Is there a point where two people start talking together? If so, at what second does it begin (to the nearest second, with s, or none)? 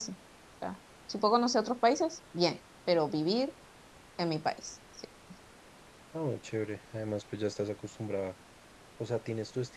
none